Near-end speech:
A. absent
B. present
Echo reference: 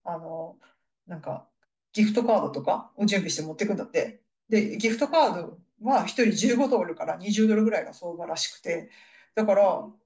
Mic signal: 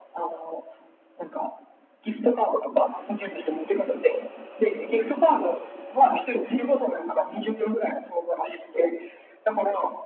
A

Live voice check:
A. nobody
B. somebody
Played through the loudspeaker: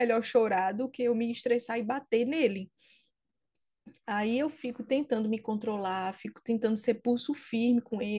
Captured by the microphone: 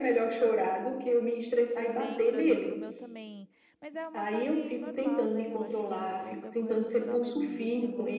B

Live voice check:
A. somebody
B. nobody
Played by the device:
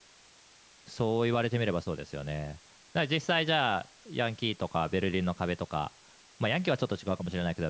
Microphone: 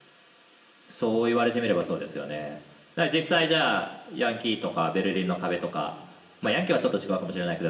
A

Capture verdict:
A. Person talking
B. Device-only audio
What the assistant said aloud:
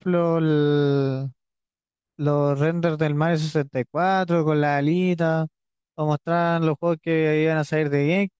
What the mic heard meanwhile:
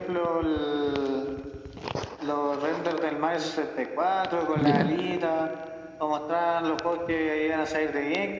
A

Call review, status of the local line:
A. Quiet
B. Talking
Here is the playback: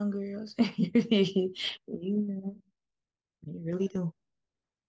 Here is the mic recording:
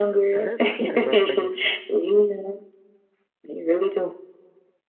B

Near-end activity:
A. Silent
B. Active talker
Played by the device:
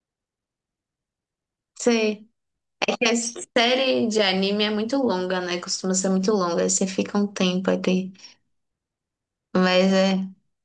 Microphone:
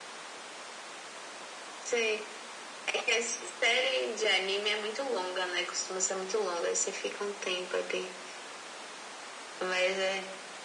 A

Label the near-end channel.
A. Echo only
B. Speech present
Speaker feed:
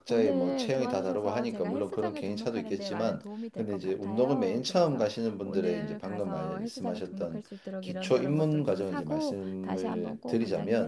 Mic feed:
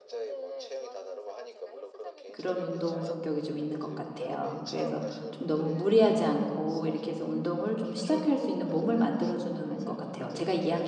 B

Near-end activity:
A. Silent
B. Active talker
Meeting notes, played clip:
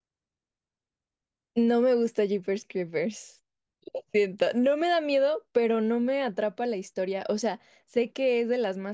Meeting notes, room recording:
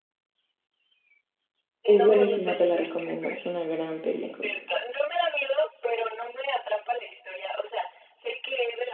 B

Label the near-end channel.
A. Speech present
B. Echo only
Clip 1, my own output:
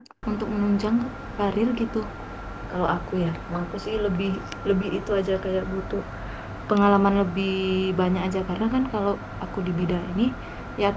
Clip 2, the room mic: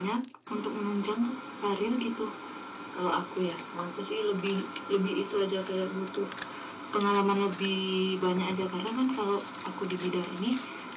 B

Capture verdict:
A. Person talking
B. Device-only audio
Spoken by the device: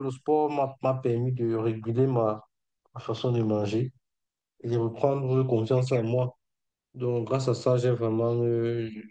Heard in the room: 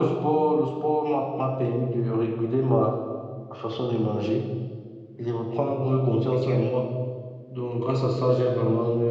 B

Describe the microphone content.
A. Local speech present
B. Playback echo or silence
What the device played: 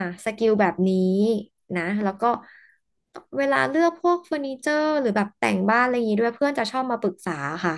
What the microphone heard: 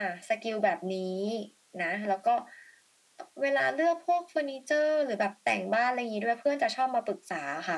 B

